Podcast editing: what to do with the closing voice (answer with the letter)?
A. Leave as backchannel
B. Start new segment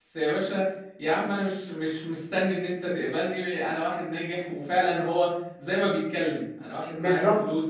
A